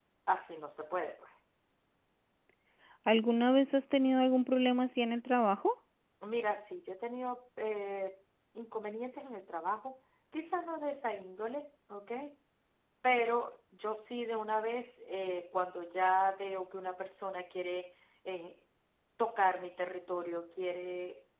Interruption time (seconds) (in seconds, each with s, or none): none